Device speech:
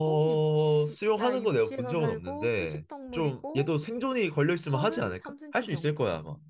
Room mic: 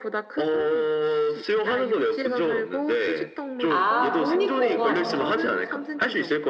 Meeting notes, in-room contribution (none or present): present